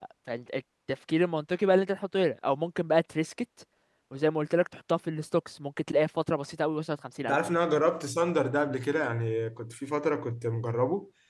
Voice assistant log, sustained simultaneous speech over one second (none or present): none